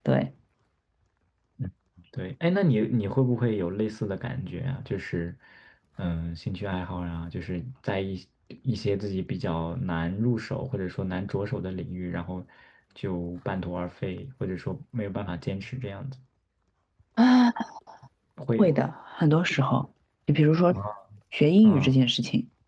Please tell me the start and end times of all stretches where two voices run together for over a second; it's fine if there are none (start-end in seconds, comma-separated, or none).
none